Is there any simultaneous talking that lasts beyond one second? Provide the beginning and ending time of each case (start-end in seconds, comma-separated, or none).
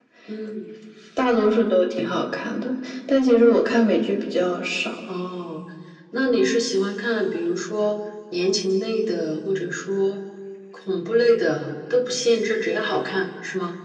none